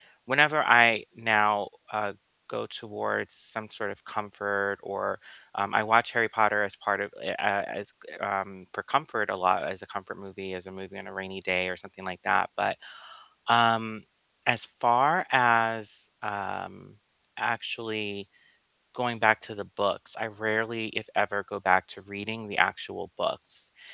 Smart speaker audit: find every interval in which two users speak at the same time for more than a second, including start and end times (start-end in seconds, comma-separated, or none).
none